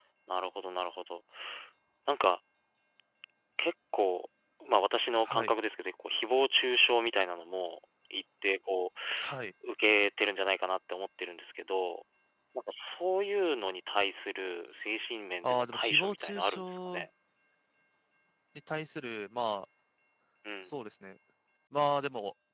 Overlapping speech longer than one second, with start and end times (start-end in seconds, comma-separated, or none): 15.4-17.0